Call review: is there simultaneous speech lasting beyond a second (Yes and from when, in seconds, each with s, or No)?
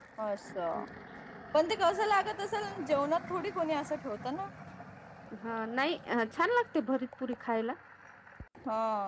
No